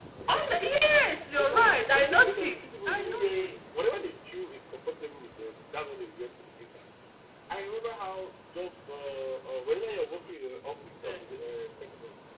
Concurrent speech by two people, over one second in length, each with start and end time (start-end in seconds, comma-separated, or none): 1.3-3.6